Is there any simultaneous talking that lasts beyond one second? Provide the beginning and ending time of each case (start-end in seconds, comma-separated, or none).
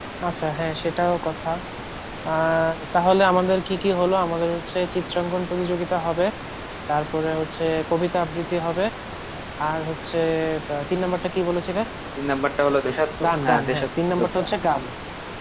13.2-14.5